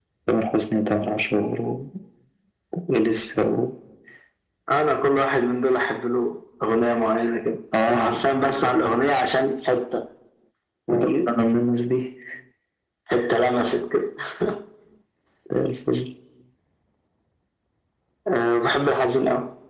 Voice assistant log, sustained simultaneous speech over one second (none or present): none